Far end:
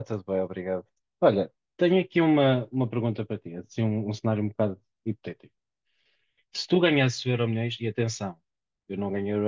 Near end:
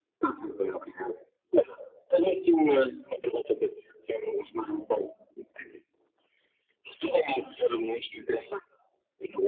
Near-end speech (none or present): none